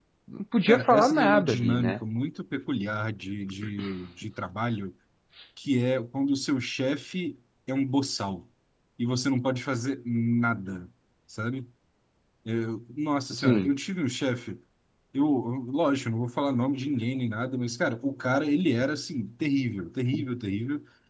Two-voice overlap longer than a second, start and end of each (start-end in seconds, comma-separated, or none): 0.7-2.0